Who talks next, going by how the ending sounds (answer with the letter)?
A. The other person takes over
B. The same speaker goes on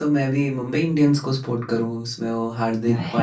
B